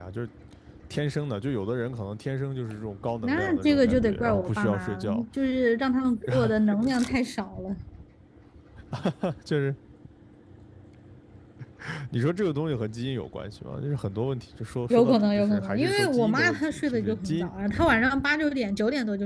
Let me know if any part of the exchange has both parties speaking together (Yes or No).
Yes